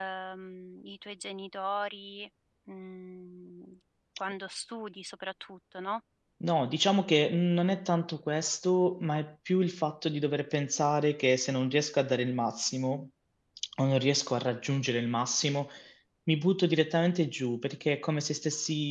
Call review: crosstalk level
none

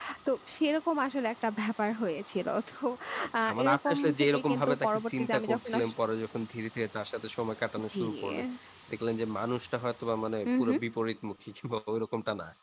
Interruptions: present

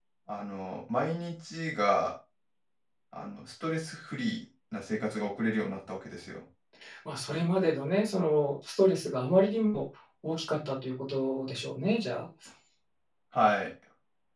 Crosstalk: none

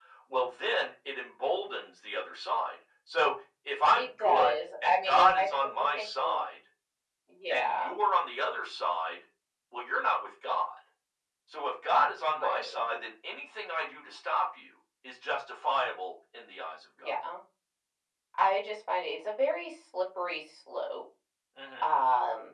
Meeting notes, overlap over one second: present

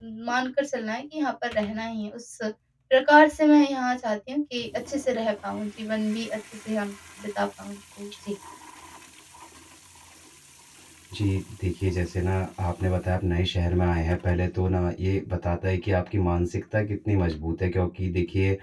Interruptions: none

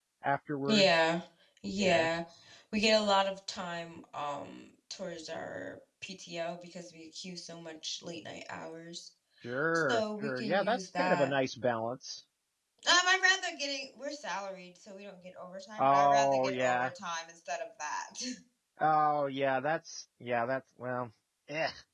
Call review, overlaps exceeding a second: present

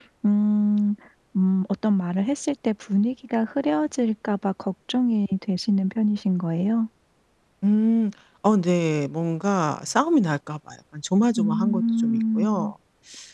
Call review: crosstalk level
present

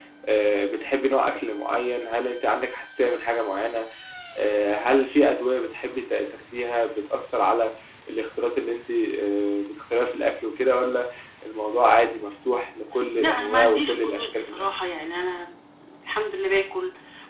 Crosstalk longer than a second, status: present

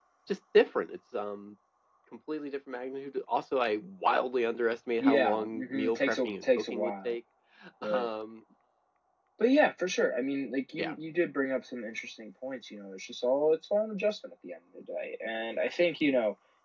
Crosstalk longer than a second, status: present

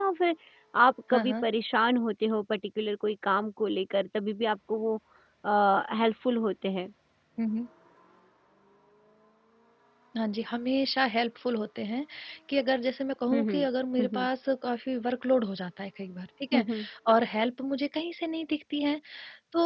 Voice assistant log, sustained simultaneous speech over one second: none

